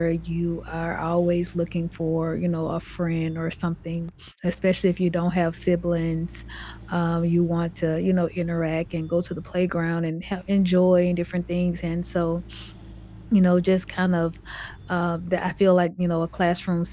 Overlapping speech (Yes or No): No